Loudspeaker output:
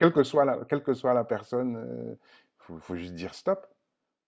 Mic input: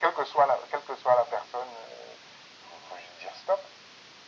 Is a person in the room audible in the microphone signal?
No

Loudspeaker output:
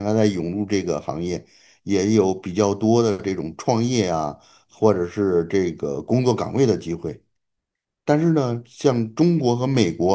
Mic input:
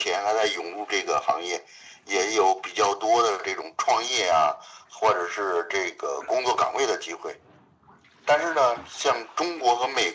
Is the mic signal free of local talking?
Yes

